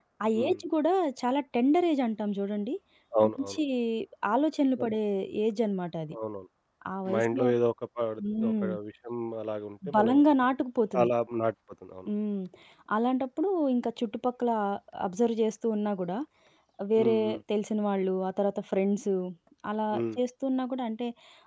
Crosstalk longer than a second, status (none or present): none